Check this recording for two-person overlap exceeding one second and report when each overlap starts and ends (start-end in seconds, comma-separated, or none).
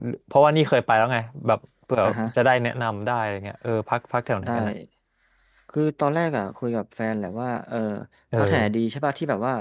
none